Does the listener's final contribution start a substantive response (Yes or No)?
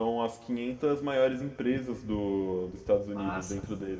No